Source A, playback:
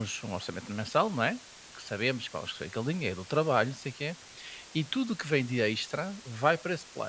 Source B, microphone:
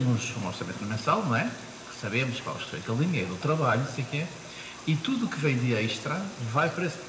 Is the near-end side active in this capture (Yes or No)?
No